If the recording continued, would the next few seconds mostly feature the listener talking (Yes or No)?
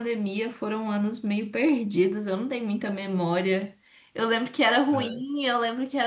No